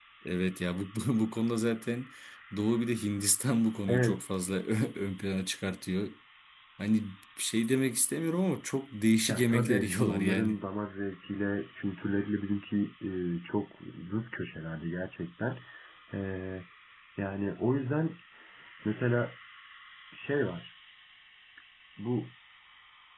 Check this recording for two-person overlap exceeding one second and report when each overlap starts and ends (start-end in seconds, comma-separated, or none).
9.3-10.6